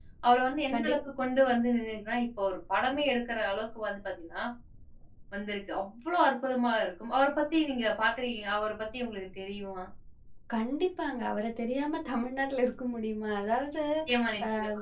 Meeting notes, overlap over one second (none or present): none